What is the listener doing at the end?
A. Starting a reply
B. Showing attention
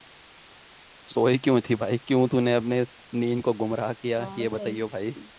A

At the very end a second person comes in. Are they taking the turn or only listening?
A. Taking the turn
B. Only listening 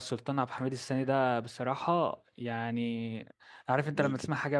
B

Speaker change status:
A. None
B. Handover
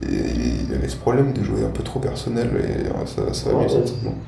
B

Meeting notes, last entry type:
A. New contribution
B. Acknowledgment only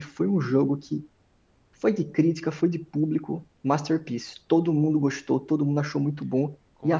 B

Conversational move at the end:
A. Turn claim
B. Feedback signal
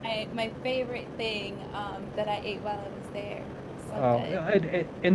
A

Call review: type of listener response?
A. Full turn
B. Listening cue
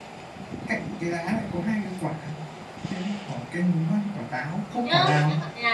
A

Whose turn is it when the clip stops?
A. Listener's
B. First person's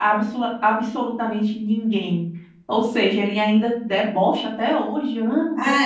A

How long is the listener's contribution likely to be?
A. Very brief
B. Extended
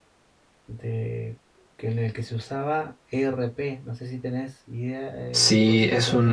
B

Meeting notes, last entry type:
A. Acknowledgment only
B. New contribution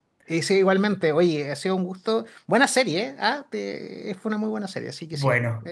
B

